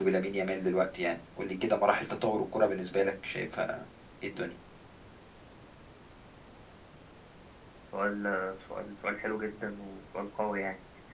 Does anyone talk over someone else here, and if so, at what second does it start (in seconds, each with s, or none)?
none